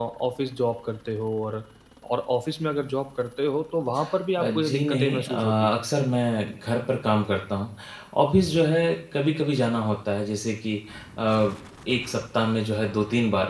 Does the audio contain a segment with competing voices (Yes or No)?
Yes